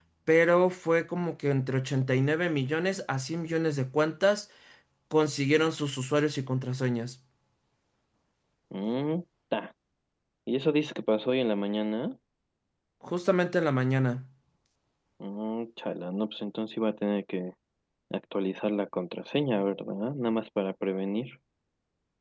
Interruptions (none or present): none